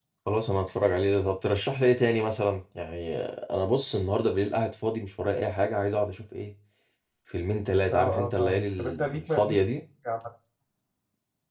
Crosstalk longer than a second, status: present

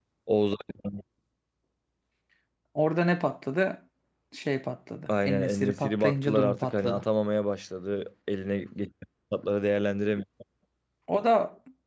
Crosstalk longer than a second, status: present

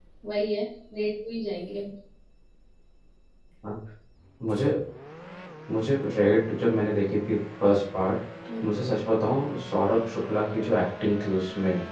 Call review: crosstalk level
none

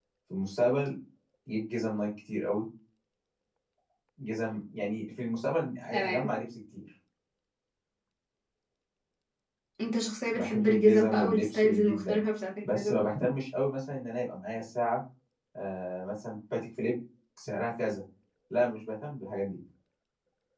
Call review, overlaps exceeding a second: present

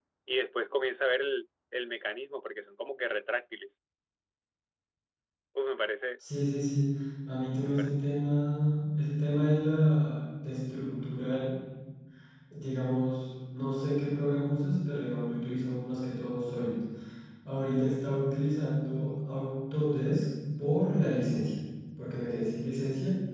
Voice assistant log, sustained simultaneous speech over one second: none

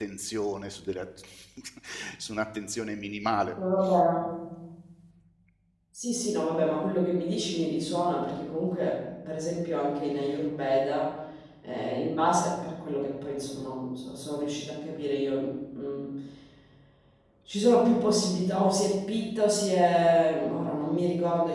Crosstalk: none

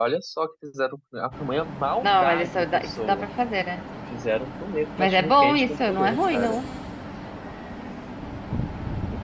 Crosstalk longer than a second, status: present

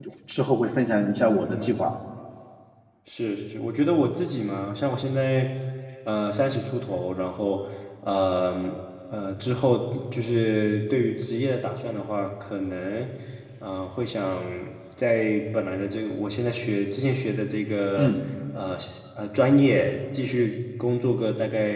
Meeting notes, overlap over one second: none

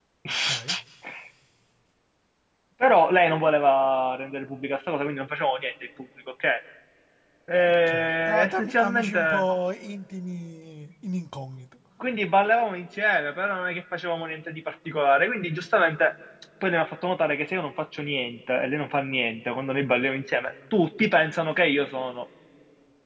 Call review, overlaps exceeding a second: present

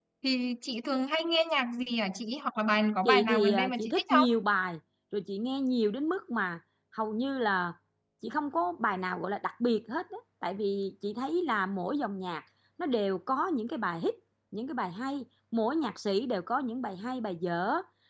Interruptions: present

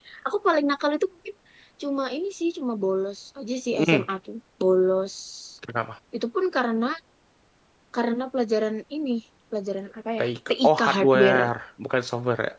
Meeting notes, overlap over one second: present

